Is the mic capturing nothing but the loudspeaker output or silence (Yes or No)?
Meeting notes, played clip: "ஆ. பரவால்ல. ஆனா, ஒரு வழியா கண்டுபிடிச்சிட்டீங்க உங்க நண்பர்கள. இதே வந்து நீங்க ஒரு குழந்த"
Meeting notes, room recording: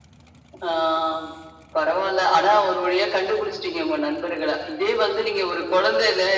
Yes